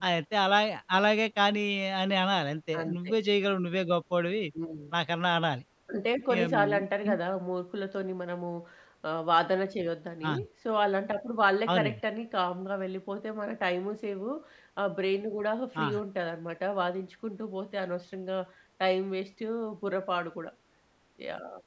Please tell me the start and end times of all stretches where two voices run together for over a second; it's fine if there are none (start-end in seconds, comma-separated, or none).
none